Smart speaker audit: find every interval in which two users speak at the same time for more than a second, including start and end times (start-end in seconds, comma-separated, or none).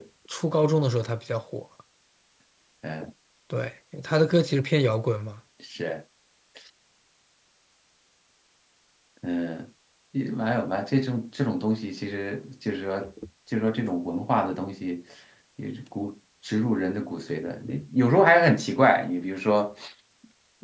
none